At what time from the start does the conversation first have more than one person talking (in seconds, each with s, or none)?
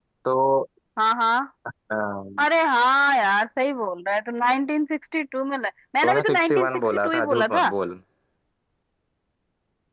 6.0 s